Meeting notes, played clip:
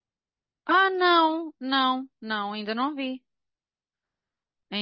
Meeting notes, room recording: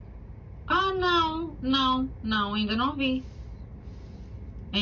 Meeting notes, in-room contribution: none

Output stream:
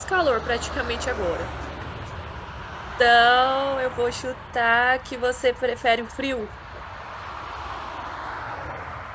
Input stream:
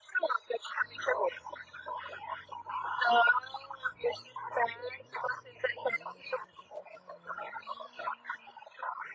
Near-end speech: none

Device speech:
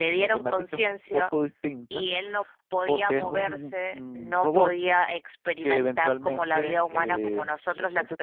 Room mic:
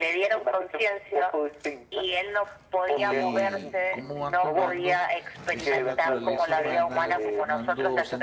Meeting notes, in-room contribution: present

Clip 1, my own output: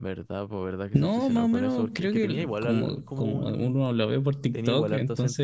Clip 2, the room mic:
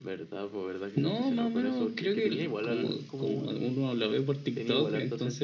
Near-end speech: none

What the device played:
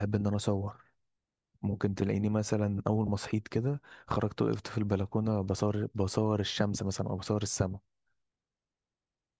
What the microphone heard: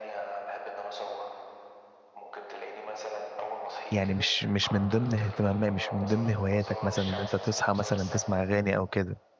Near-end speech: present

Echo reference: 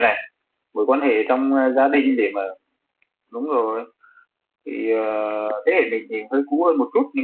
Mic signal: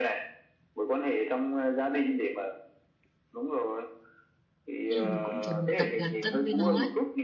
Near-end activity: present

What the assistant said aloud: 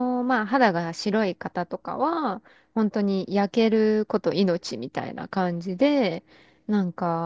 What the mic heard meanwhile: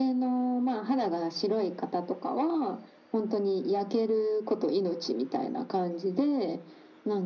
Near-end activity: none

